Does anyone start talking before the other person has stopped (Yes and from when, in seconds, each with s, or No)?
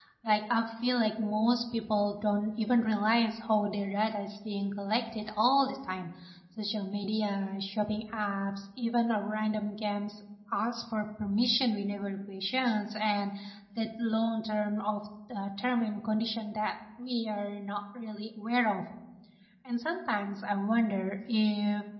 No